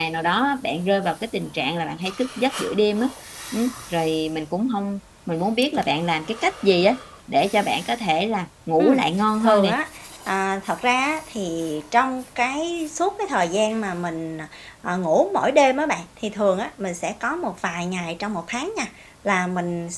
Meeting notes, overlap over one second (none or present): none